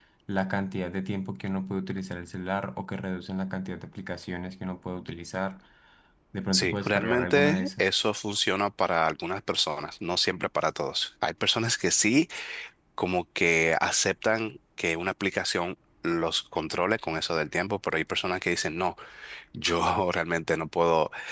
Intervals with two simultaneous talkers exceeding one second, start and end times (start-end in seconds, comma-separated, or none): 6.5-7.8